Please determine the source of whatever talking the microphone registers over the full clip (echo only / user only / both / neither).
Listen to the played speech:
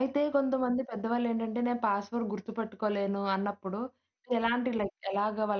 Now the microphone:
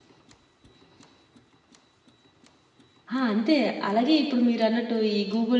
user only